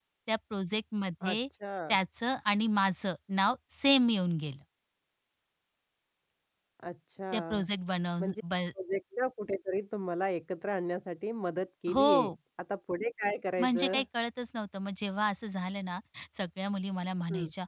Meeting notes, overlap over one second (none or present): none